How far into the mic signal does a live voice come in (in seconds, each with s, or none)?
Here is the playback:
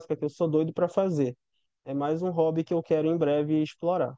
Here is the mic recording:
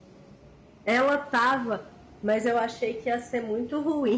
0.8 s